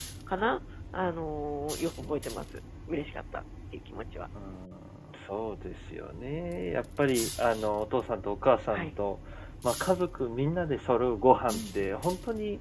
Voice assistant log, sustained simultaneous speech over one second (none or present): none